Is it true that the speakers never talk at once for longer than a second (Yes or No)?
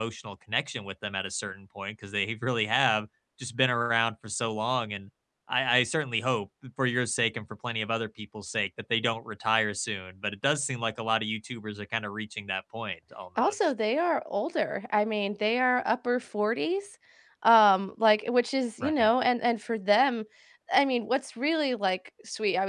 Yes